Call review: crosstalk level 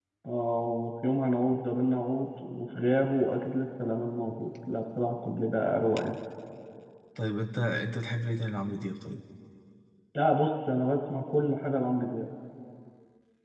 none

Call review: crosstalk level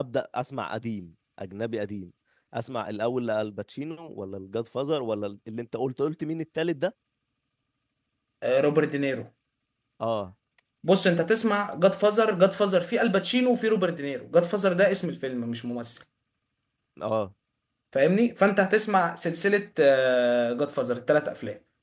none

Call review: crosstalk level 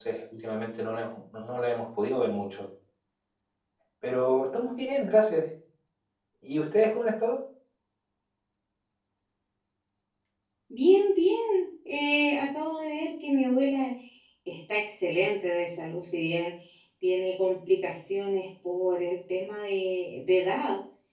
none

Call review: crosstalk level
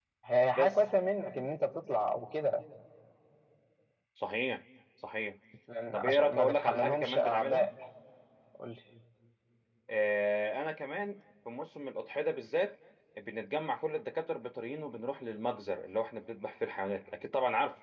present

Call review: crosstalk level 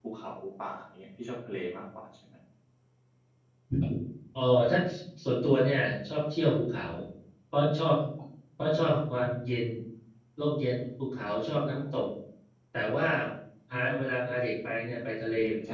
none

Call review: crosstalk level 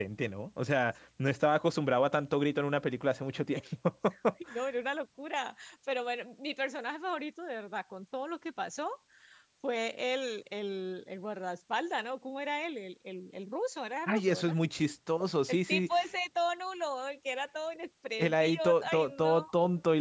present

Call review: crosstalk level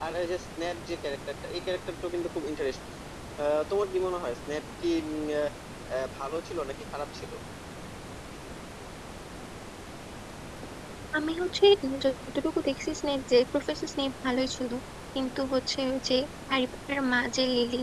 none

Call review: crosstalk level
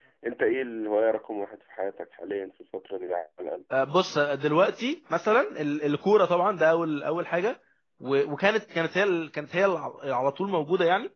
none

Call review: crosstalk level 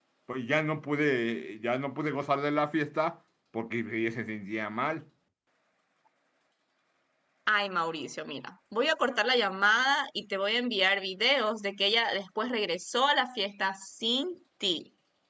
none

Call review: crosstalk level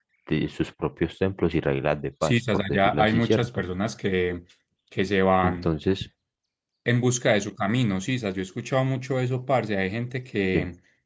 present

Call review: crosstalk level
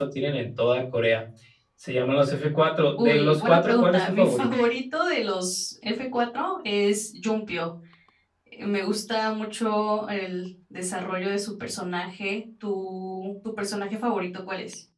present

